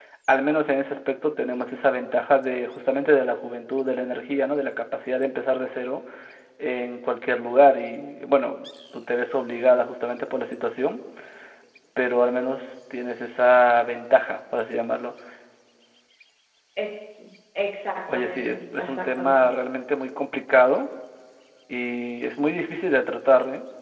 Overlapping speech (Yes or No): Yes